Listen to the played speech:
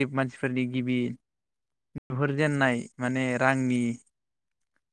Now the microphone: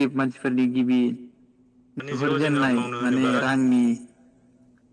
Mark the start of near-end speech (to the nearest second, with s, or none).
2 s